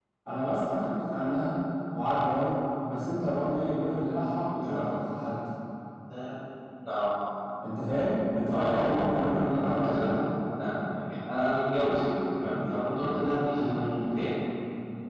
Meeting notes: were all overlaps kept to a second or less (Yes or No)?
No